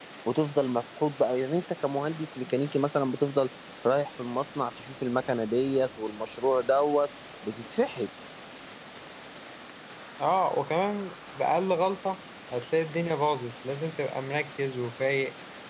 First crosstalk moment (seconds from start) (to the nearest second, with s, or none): none